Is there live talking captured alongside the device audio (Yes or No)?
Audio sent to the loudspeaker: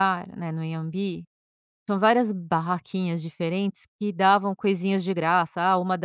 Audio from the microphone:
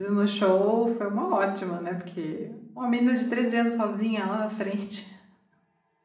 Yes